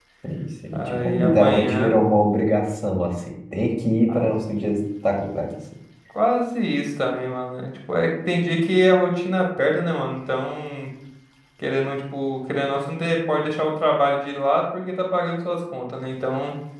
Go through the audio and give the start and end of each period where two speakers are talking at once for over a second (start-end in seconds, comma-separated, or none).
0.7-1.9